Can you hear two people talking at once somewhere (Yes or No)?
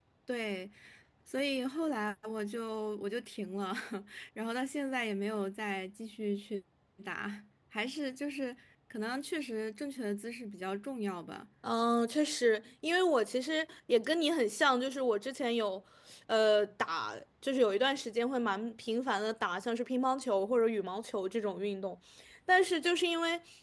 No